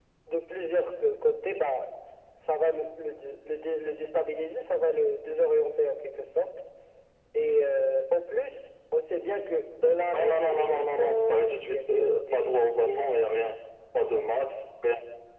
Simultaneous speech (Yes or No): Yes